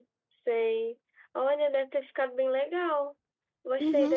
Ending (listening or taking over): taking over